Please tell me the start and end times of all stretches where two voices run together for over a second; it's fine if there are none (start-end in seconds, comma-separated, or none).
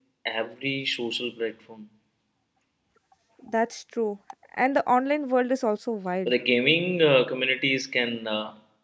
none